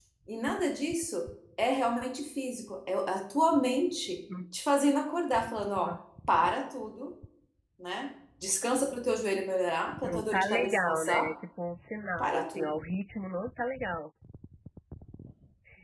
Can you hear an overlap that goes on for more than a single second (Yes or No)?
Yes